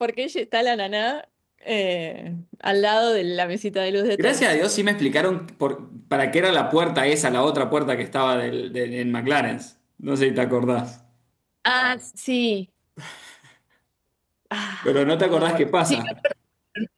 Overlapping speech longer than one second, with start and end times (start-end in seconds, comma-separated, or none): 14.8-16.1